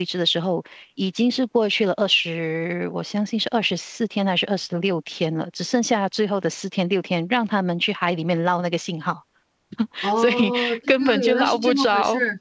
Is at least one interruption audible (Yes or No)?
Yes